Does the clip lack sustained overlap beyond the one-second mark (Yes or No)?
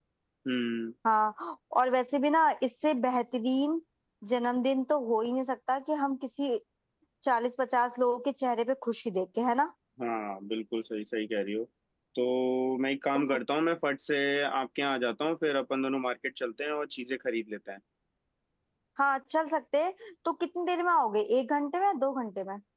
Yes